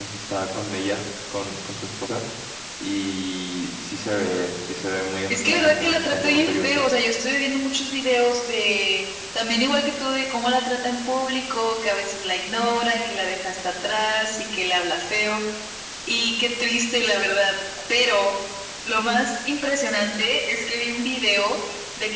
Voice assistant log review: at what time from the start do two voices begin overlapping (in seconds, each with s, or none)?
5.3 s